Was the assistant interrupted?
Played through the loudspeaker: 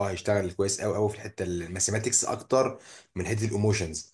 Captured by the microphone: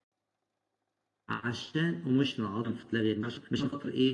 Yes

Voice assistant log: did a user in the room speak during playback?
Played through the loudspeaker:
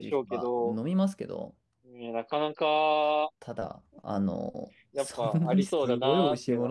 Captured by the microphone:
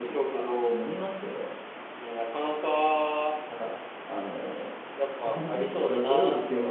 No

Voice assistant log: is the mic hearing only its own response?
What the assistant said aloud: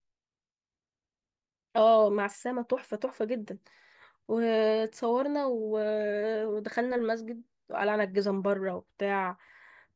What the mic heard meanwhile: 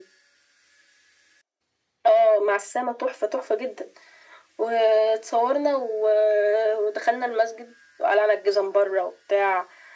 Yes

